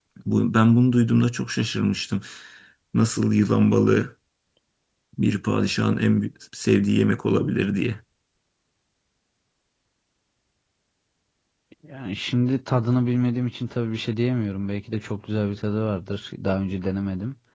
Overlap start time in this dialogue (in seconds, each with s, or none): none